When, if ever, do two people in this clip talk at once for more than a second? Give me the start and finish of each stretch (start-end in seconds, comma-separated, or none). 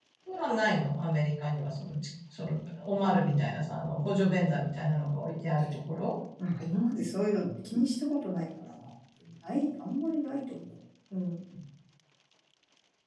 none